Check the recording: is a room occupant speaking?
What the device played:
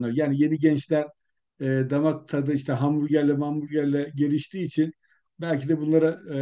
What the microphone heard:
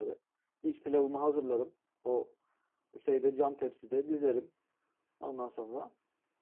Yes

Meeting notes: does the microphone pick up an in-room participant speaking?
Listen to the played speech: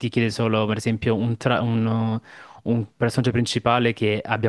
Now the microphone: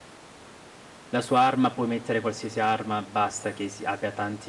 Yes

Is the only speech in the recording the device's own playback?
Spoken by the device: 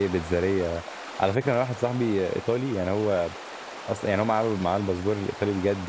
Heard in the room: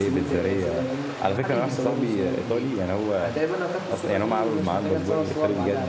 No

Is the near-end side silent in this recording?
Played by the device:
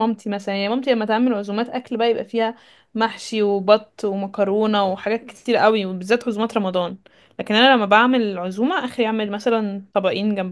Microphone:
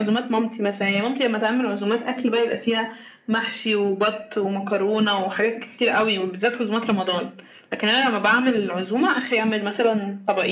Yes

